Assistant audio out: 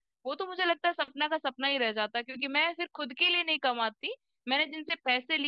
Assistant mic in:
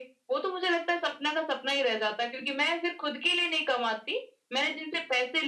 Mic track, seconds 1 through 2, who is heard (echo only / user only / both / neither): echo only